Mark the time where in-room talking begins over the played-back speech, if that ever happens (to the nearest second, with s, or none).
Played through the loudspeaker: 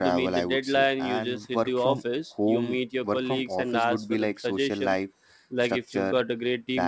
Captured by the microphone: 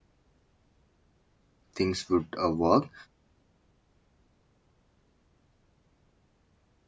2 s